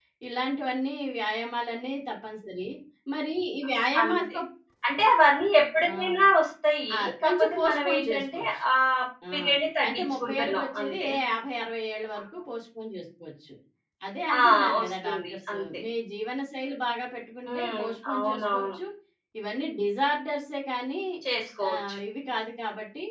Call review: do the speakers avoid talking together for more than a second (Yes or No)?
No